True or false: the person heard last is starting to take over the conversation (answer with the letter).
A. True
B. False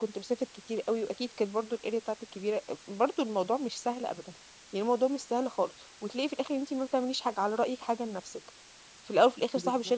B